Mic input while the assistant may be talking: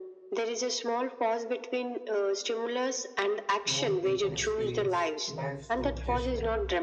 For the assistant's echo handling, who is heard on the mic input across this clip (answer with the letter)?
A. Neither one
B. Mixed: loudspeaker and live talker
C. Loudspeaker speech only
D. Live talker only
B